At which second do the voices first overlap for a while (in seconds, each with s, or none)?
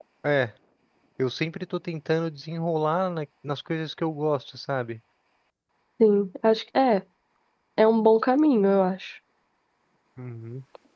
none